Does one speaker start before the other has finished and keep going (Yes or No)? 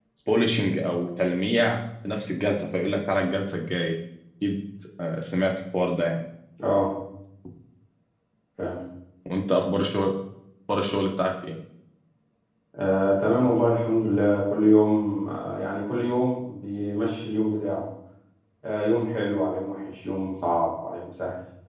No